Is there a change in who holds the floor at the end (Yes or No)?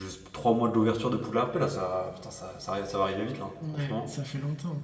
Yes